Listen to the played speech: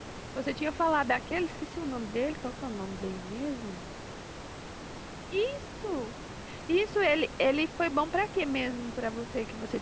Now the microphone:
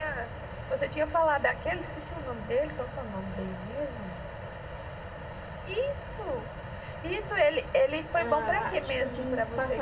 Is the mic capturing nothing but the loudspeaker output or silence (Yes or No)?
No